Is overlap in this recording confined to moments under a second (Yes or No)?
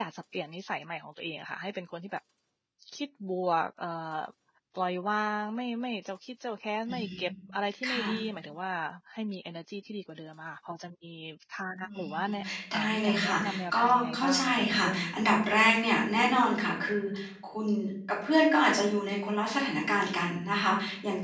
No